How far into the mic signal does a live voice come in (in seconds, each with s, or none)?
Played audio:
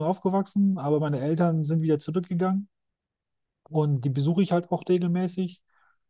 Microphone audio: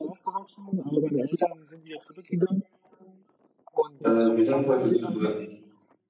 4.0 s